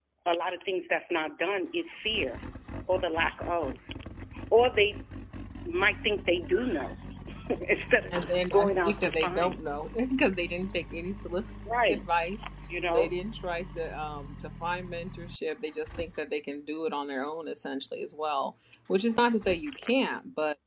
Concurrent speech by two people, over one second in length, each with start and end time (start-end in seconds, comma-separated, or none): 8.1-9.6